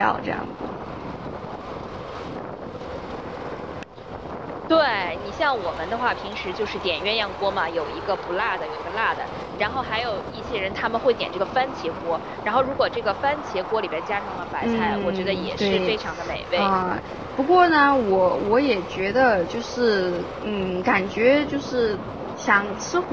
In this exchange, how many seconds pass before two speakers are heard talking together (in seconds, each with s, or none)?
14.6 s